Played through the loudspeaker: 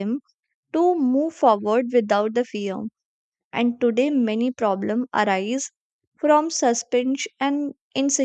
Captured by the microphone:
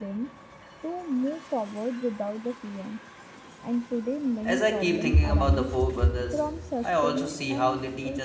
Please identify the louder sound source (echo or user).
user